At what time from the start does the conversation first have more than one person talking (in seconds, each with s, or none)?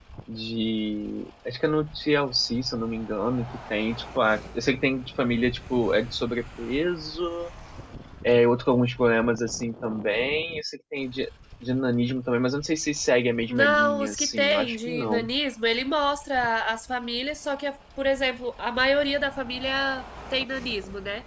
13.5 s